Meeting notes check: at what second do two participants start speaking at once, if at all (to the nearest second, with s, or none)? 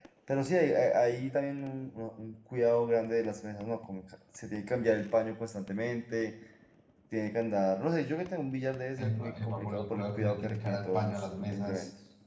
9 s